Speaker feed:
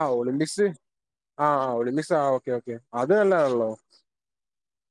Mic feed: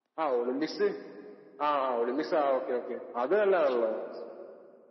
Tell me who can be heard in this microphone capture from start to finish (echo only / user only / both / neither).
echo only